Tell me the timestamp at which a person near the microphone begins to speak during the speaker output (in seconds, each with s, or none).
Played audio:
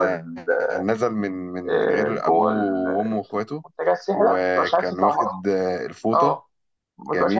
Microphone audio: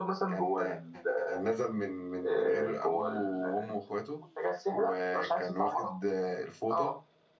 none